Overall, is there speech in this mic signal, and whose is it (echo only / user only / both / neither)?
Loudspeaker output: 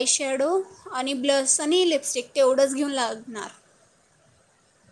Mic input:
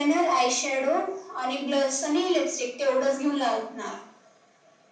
echo only